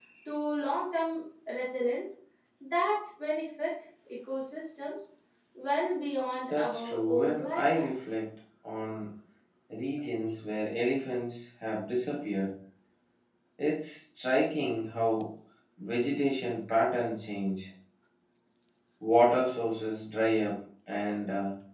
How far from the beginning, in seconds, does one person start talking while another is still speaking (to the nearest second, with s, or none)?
7 s